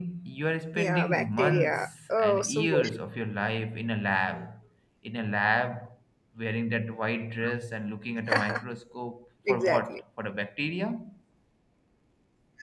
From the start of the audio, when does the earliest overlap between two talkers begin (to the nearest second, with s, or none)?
1 s